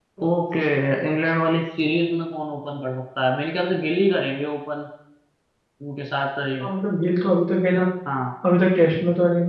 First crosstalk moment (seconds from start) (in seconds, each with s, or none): none